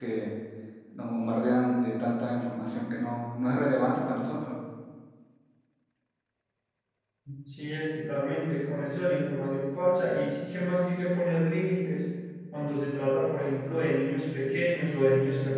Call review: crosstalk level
none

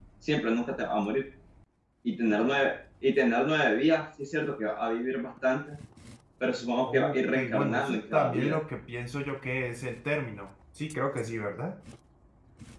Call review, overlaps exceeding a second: present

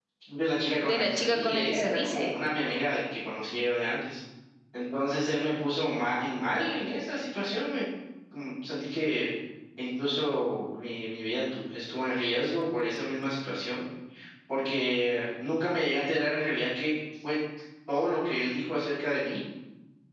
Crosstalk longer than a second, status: present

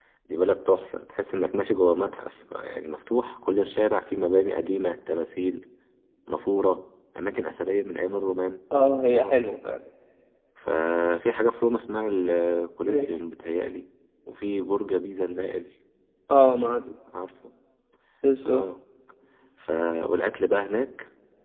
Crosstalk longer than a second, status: none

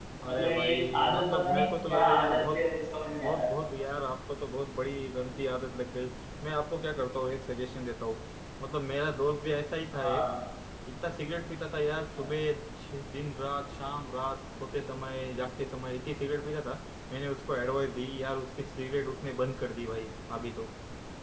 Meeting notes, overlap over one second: present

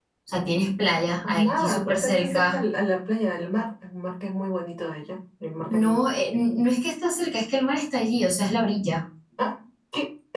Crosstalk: present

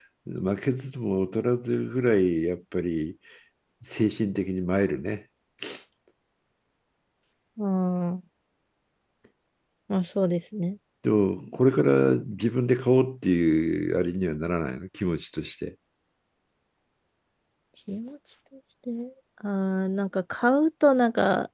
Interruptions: none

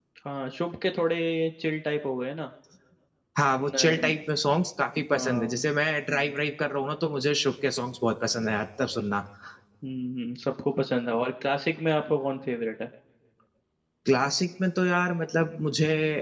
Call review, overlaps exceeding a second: none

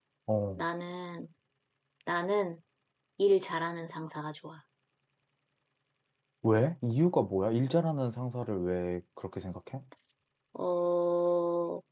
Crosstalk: none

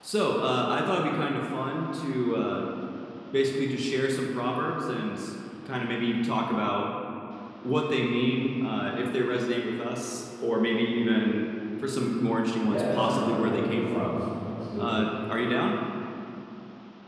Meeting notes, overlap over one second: present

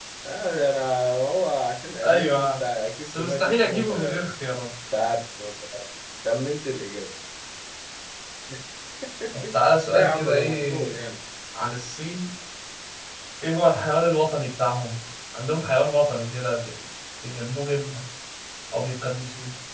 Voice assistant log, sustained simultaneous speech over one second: present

